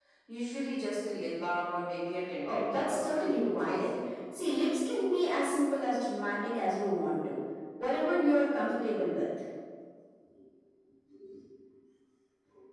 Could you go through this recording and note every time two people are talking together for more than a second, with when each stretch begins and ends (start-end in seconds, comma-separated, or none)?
2.4-4.0